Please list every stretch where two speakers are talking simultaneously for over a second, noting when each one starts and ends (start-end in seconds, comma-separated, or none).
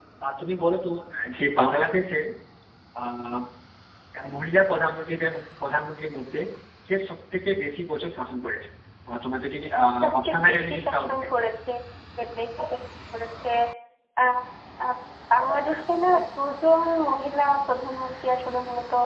10.0-11.4